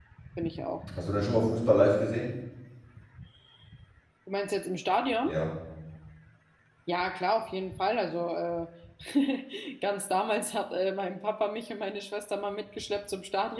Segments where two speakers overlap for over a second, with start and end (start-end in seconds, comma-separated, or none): none